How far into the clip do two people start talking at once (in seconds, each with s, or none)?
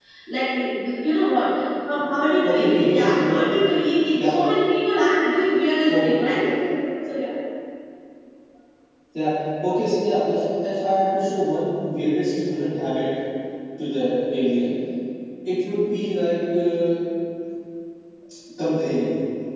2.4 s